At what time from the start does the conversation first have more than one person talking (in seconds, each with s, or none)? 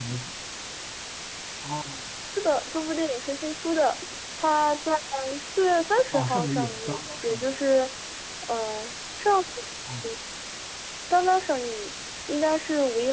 6.1 s